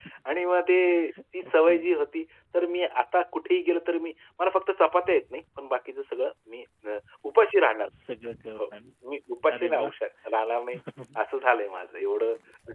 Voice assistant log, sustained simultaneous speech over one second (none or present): none